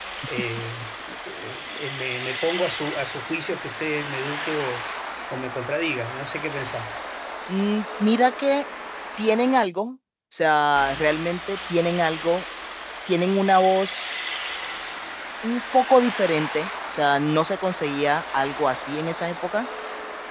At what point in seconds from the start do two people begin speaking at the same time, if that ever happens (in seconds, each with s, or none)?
none